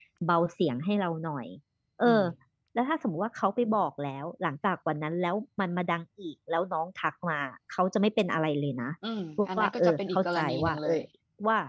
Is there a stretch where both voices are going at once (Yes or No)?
Yes